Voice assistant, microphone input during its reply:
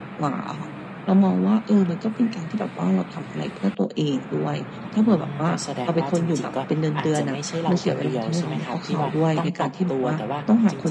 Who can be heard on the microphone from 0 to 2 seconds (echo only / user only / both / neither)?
echo only